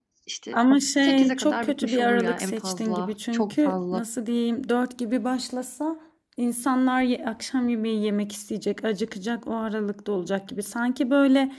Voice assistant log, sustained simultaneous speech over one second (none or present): present